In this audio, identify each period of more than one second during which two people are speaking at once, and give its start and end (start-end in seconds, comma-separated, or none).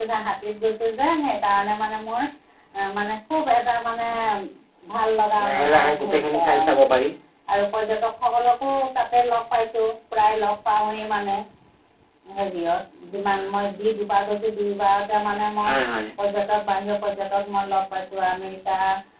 5.4-6.9